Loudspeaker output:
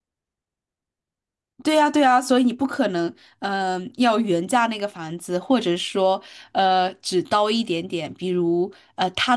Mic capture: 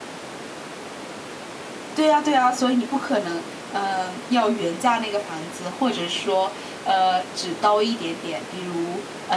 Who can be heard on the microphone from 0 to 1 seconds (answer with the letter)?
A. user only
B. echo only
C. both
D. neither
D